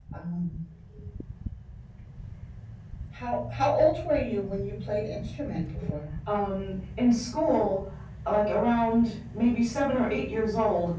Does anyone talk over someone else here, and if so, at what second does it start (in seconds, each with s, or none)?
none